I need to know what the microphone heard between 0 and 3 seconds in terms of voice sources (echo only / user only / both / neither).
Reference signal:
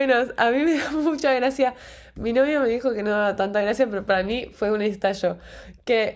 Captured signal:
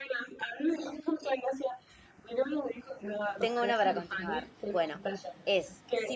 echo only